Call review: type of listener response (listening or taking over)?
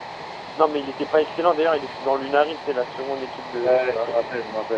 taking over